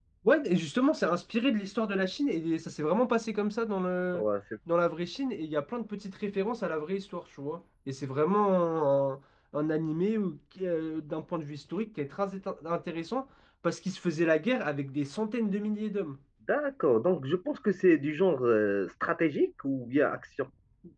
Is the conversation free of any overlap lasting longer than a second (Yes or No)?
Yes